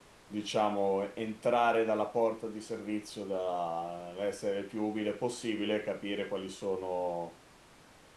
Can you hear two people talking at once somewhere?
No

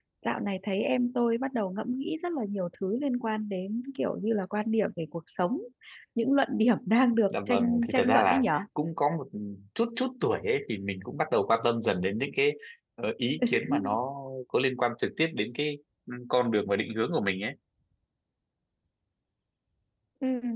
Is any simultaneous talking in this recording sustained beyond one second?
Yes, from 7.3 s

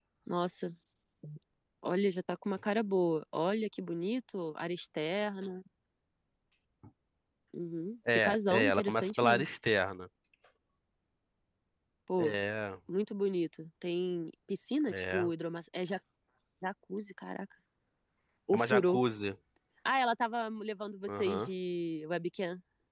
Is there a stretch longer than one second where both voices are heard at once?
Yes, from 8.1 s

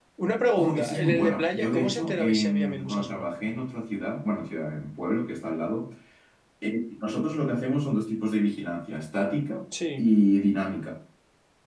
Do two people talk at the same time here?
Yes, from 0.5 s

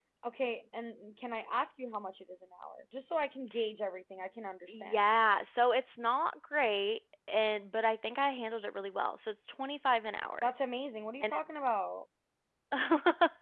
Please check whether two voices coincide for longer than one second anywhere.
No

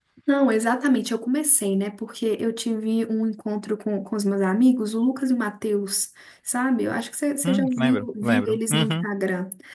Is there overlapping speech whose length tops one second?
Yes, from 7.4 s

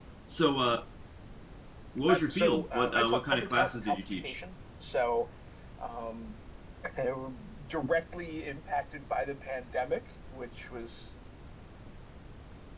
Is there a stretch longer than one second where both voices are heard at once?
Yes, from 2.1 s

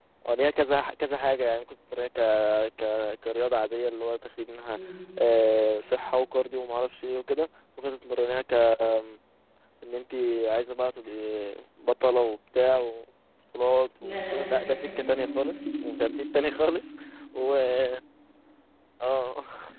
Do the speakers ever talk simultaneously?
Yes, from 14.0 s

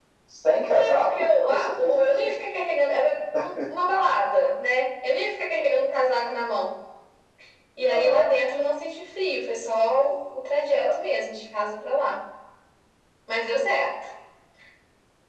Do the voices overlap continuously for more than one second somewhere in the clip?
Yes, from 0.7 s

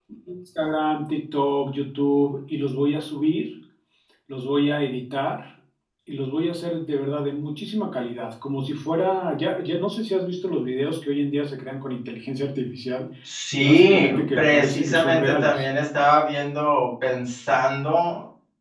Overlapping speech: Yes, from 13.6 s

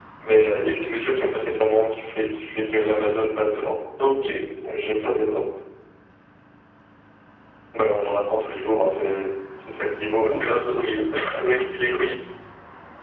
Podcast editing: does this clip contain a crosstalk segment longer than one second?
No

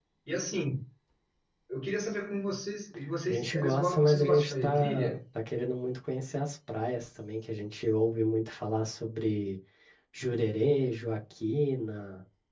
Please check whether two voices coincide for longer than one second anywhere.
Yes, from 3.3 s

